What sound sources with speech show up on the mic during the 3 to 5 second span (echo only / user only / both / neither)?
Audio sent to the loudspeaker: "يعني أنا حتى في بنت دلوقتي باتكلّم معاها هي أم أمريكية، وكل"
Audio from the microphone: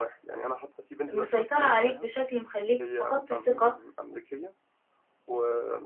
both